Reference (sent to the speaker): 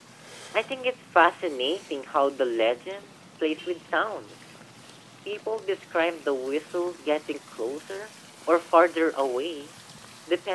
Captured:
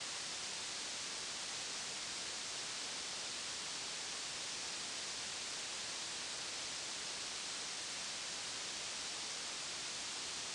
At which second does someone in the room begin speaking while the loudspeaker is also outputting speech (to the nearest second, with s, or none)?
none